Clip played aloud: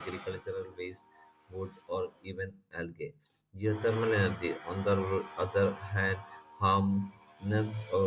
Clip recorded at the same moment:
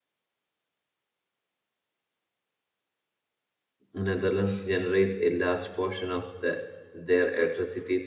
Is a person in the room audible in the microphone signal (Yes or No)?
Yes